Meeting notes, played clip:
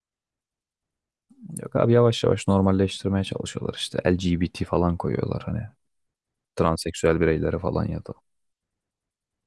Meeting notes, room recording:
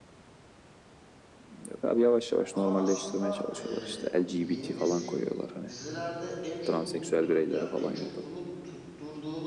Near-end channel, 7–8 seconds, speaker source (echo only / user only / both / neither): both